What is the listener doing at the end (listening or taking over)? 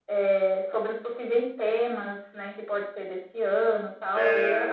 listening